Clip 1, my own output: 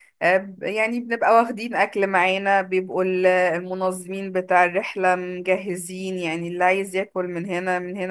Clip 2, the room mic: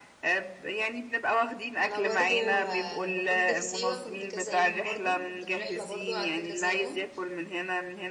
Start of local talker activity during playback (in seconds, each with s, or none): 1.8 s